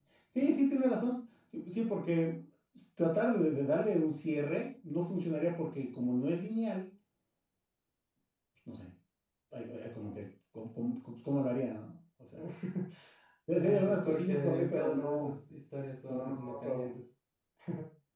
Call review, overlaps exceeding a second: present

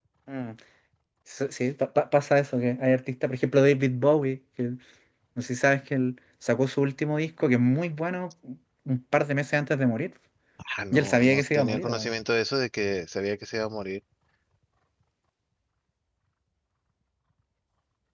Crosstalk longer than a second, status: present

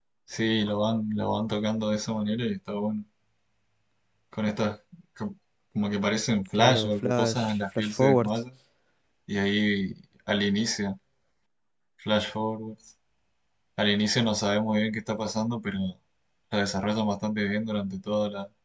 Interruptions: present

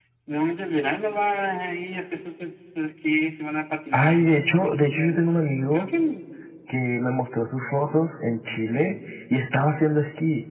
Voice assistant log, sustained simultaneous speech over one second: present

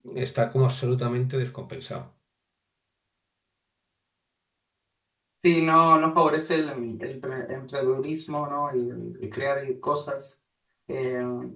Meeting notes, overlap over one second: none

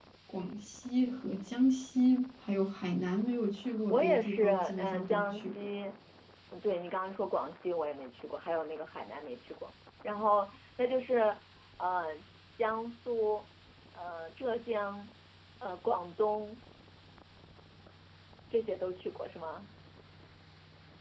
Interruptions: present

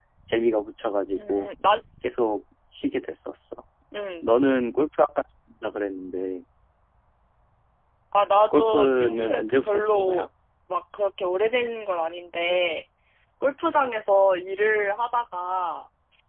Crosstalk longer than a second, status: present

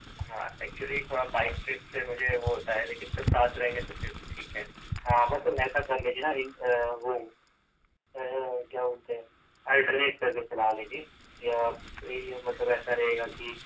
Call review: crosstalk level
none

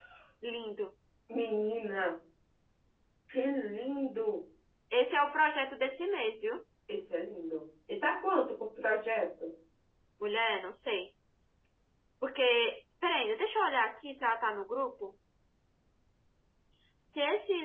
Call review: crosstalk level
none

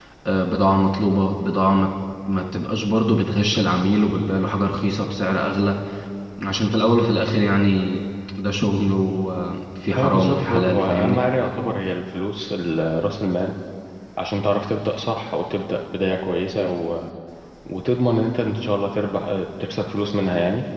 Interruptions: present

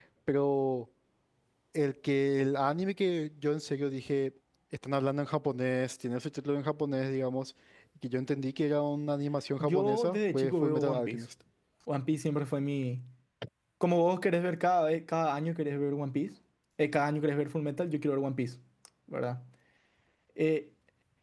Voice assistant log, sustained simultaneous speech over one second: present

